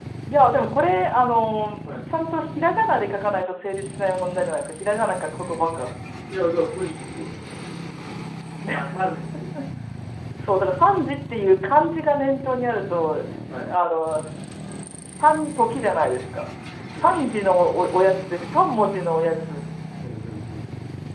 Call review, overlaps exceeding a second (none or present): none